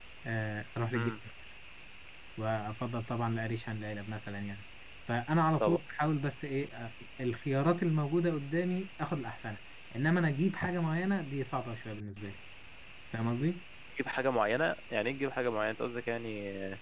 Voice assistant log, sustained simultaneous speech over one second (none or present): none